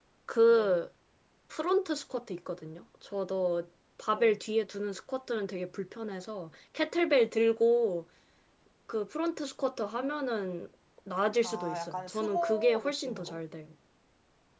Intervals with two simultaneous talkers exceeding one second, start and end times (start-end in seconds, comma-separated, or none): 11.4-13.4